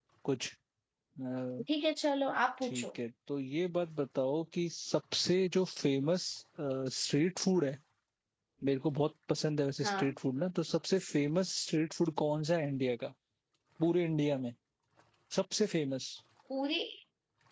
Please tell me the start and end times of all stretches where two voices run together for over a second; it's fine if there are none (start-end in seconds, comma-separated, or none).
none